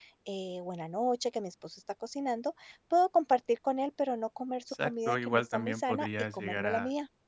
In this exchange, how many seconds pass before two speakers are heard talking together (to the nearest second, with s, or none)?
5 s